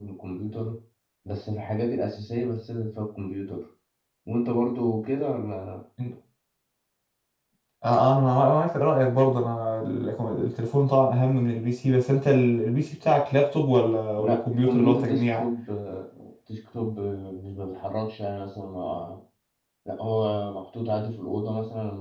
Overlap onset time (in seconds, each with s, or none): 14.2 s